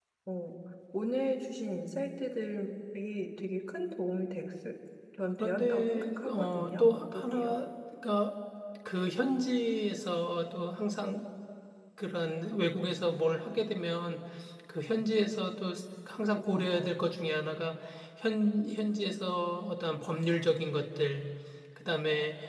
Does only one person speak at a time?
No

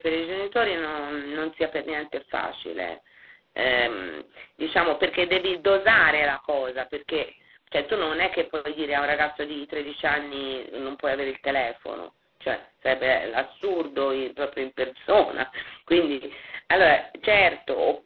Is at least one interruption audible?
No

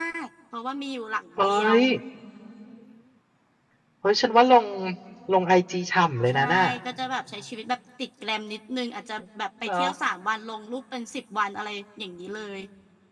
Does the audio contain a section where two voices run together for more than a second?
No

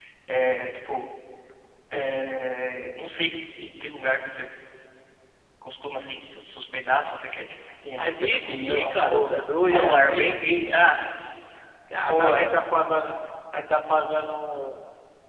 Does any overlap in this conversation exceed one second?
Yes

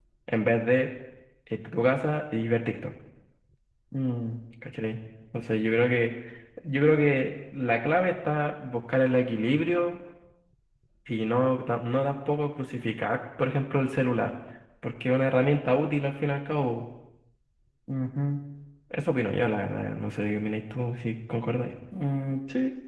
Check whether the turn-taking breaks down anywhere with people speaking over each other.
No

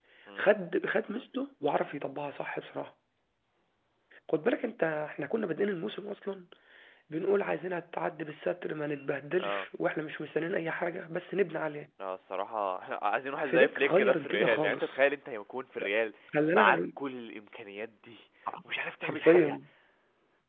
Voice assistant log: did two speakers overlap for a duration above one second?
Yes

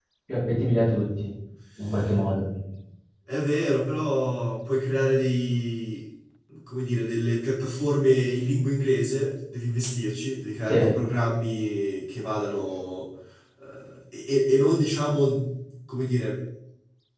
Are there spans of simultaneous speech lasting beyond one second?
No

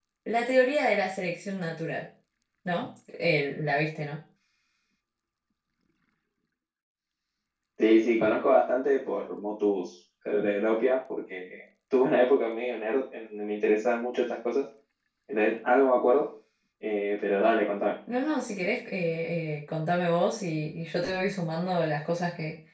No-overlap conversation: Yes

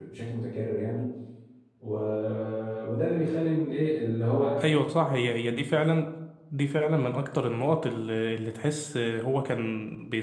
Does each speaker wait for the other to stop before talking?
Yes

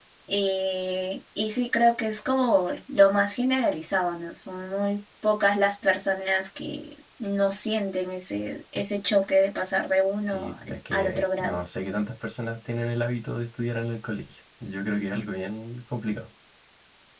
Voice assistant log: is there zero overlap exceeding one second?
No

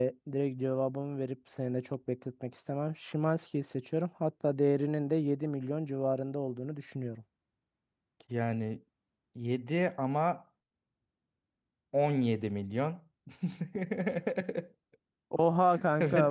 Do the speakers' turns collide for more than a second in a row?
No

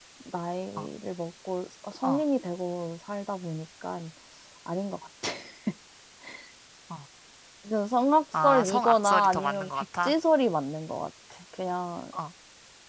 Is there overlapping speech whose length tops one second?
Yes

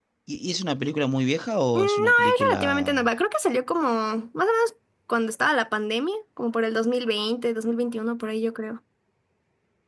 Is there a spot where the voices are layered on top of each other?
Yes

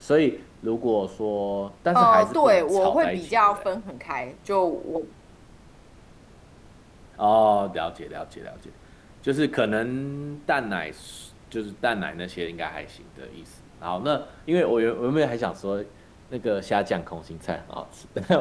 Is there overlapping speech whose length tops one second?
Yes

